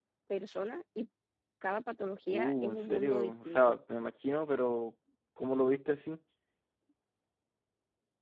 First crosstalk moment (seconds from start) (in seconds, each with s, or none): 2.3 s